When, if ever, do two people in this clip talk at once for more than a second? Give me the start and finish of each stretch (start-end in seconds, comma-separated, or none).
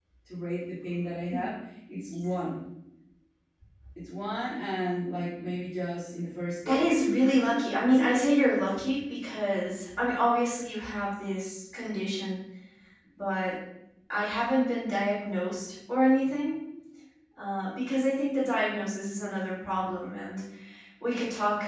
6.6-8.2